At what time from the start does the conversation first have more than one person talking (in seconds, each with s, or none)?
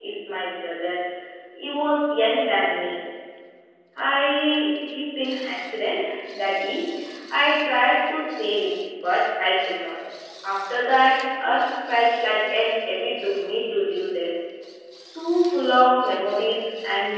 none